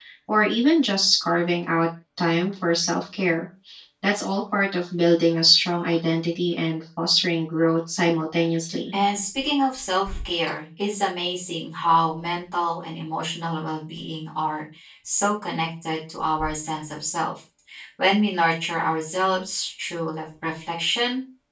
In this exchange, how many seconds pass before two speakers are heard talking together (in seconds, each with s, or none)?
none